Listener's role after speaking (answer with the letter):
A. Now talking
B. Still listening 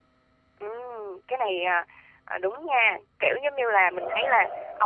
B